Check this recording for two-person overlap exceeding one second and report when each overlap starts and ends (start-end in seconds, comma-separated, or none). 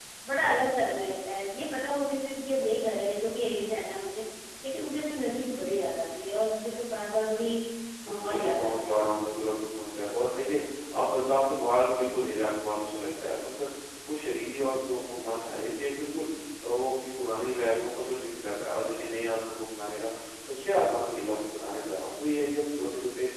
8.1-9.6